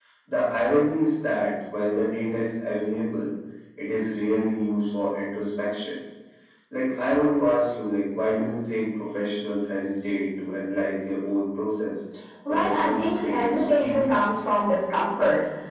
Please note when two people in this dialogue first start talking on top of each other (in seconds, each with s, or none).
12.5 s